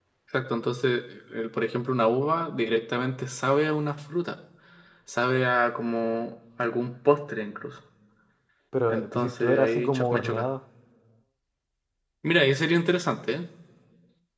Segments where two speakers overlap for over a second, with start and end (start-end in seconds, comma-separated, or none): 8.9-10.5